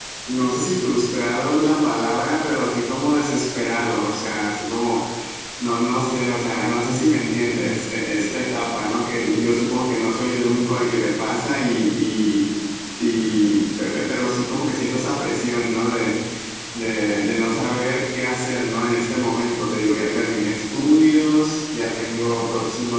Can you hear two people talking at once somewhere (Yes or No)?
No